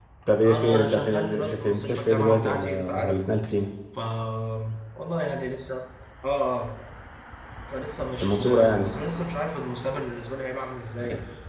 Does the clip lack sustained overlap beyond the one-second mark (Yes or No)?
No